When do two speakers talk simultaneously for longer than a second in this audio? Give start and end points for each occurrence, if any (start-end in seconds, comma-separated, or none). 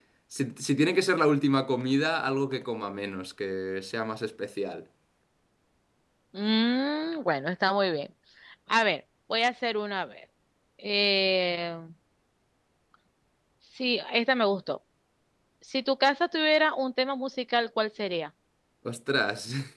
none